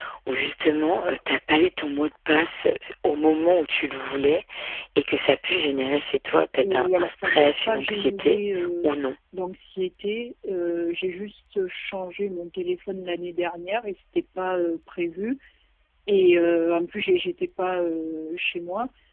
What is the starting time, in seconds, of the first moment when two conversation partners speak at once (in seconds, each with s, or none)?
6.6 s